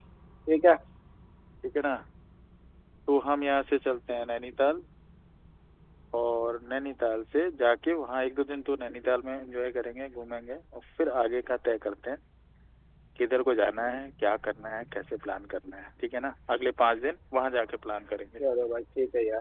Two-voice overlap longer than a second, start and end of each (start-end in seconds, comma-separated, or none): none